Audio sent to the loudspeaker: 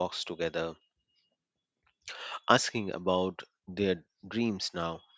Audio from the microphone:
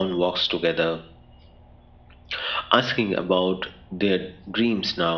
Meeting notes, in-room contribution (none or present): none